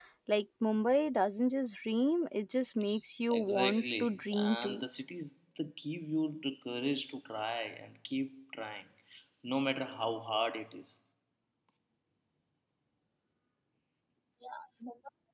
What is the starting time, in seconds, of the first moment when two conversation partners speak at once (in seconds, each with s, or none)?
3.3 s